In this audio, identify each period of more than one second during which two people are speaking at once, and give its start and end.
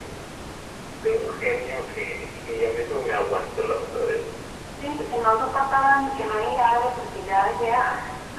none

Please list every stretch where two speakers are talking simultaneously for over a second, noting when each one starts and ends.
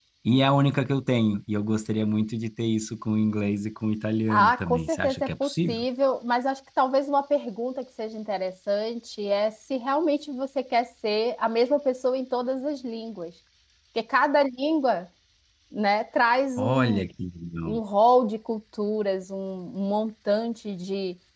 4.3-5.8

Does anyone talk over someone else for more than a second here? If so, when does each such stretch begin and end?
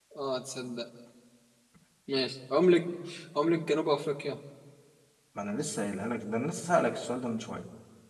none

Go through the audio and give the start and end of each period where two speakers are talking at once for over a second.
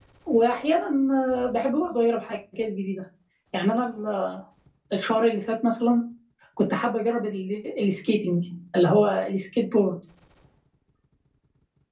none

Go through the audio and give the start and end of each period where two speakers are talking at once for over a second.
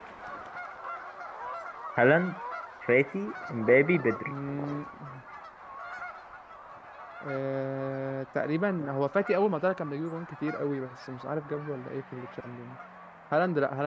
none

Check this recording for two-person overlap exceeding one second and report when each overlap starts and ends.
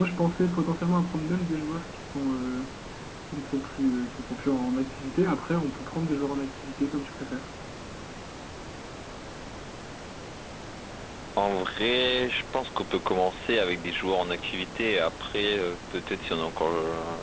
none

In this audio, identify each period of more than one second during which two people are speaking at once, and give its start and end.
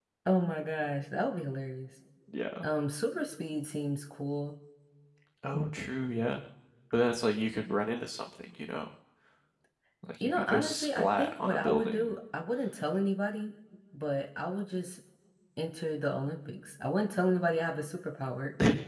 10.2-12.1

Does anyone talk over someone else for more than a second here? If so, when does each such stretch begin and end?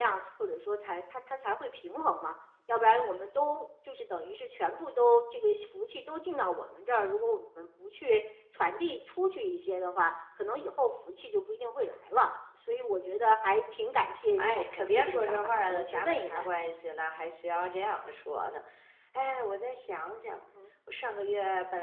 14.4-16.5

